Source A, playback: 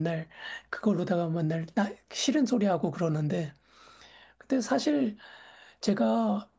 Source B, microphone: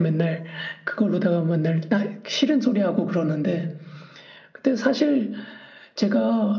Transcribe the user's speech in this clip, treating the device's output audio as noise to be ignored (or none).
none